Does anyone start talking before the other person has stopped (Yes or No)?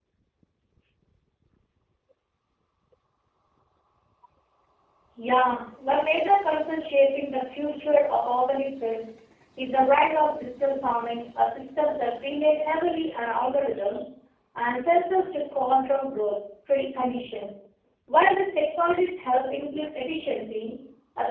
No